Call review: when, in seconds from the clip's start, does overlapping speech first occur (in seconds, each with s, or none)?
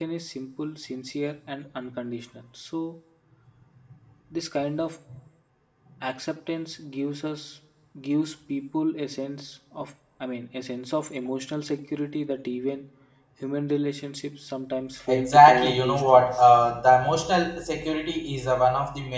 15.1 s